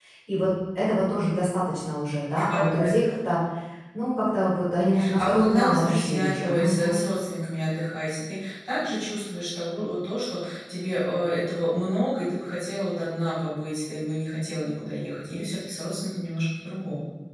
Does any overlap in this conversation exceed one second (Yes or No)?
Yes